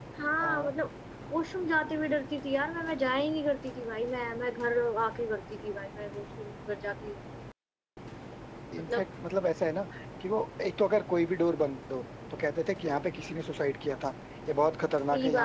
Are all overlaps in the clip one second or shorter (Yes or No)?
Yes